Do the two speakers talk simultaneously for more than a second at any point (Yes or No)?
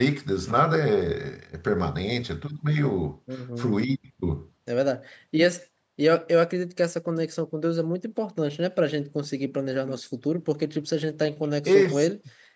No